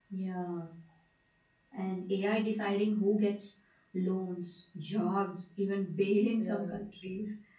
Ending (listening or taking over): listening